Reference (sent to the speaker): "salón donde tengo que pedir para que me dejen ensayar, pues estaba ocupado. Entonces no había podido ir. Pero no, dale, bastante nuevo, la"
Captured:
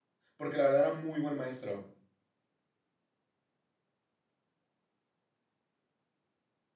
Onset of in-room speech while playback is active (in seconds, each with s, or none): 0.3 s